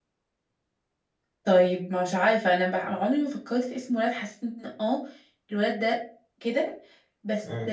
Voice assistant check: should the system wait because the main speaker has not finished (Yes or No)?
Yes